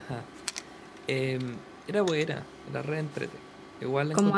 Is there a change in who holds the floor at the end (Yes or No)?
No